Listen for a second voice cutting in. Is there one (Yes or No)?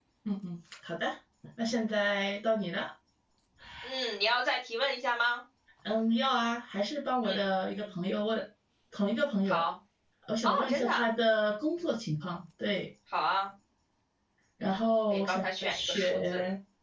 Yes